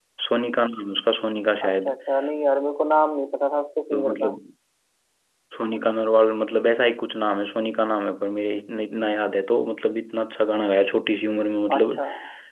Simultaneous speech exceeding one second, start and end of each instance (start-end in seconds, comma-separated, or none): none